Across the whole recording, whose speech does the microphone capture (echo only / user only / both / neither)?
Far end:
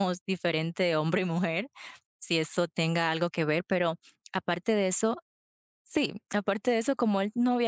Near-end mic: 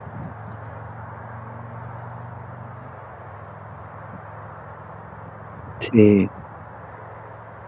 user only